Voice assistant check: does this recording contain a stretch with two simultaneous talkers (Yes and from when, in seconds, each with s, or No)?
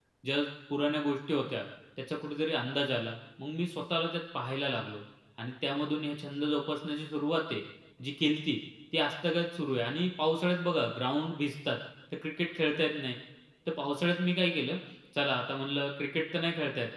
No